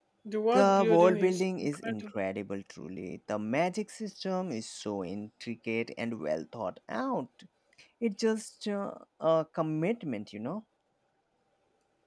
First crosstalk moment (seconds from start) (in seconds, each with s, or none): 0.5 s